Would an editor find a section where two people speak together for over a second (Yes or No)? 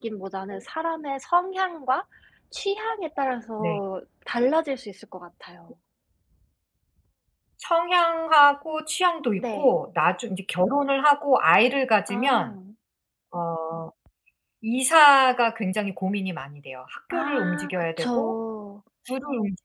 Yes